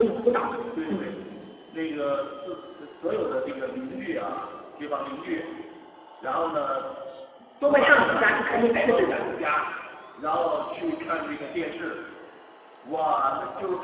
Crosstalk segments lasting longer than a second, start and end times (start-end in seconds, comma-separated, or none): 7.6-9.3